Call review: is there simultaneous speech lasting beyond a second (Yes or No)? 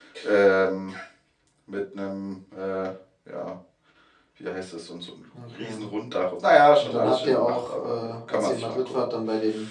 Yes